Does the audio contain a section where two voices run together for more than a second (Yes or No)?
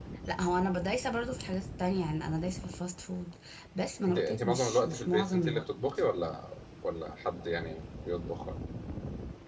Yes